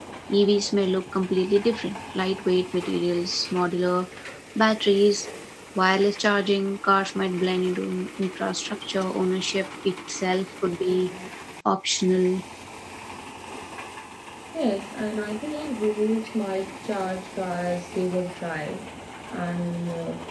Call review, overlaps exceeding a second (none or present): none